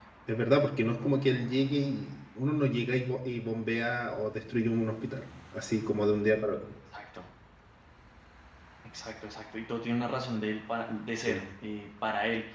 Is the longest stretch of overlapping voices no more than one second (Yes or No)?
Yes